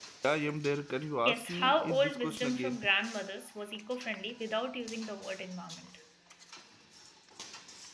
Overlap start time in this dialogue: 1.2 s

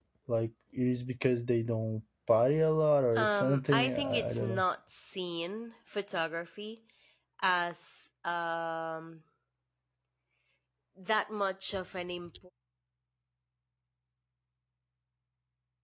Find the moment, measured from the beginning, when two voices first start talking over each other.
3.2 s

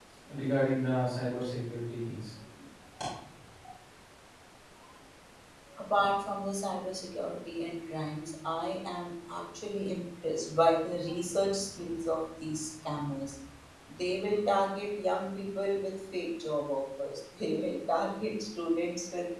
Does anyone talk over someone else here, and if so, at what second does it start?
none

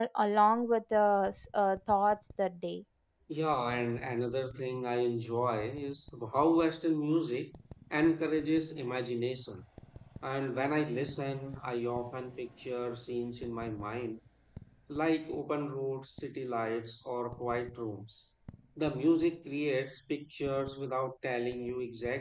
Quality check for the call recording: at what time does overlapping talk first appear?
none

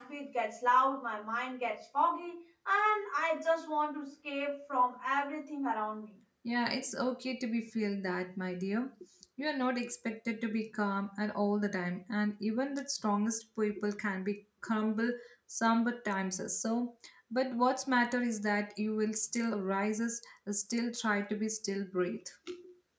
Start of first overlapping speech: none

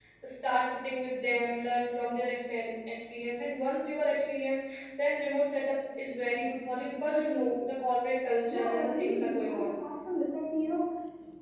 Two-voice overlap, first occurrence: 8.4 s

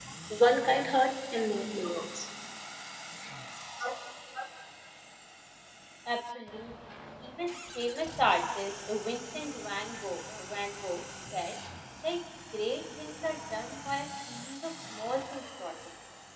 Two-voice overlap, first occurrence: none

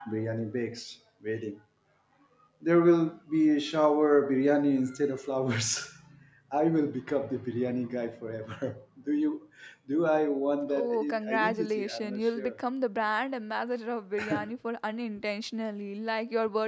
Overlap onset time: 10.7 s

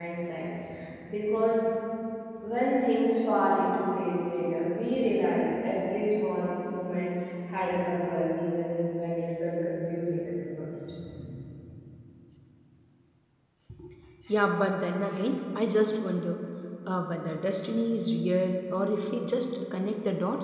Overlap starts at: none

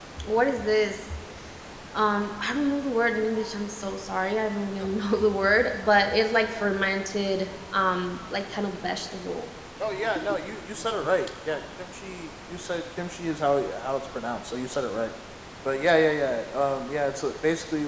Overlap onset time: none

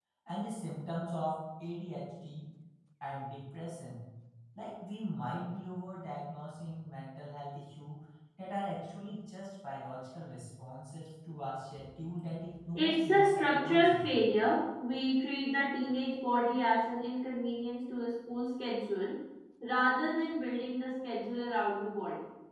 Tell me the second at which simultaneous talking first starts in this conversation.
12.8 s

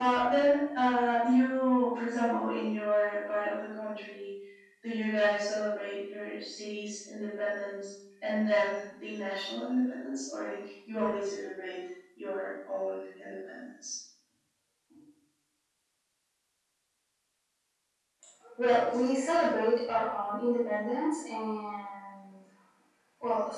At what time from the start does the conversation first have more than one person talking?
none

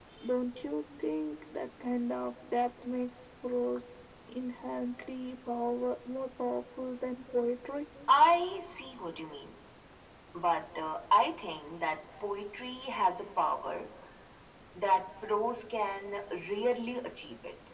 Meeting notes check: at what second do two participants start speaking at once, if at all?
none

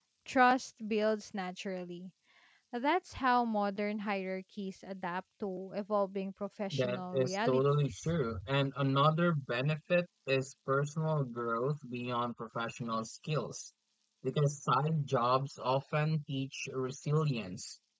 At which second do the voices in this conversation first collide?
6.7 s

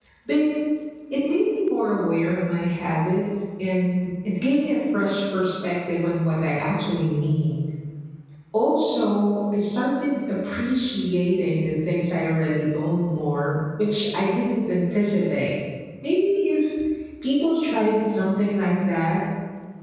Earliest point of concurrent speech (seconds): none

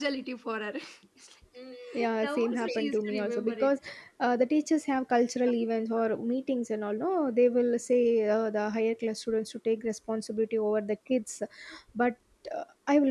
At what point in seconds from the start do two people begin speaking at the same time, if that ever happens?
2.2 s

